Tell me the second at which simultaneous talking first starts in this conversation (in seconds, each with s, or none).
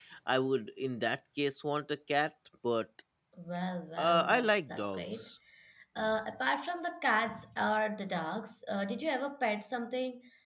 4.0 s